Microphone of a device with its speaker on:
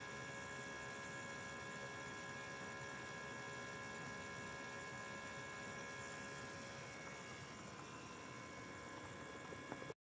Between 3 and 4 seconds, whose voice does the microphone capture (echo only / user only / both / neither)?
neither